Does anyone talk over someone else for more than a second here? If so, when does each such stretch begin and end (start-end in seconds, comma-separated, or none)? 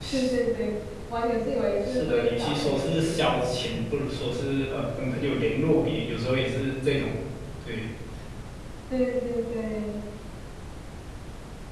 1.9-3.4